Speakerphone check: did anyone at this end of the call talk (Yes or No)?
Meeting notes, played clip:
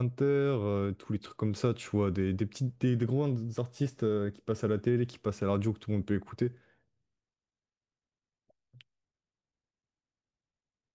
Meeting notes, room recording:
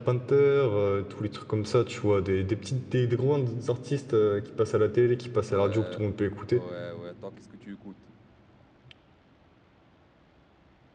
Yes